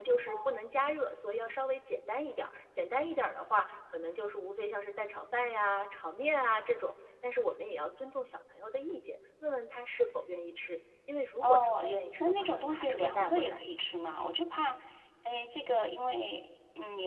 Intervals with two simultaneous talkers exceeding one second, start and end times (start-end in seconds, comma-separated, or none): 11.4-13.6